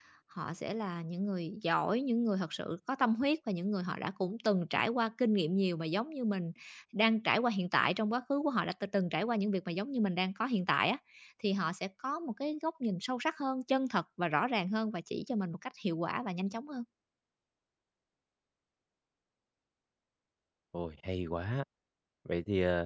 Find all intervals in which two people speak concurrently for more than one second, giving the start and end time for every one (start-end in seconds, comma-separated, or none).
none